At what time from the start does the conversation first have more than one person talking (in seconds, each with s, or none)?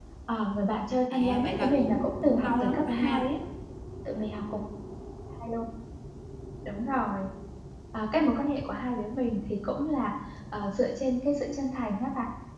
1.1 s